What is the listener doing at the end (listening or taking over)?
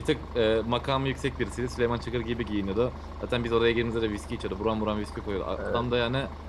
listening